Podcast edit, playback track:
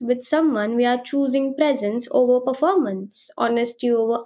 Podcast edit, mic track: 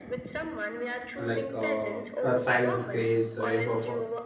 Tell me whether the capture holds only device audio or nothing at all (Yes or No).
No